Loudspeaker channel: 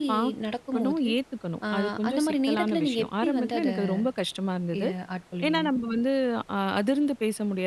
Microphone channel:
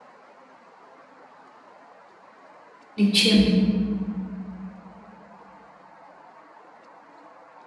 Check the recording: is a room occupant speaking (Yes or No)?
Yes